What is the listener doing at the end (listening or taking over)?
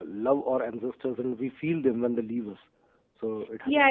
taking over